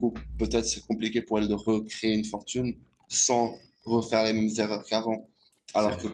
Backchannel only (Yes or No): Yes